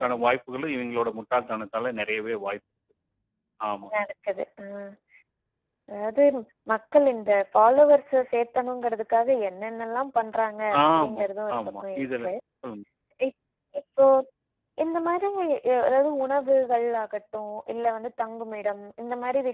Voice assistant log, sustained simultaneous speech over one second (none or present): present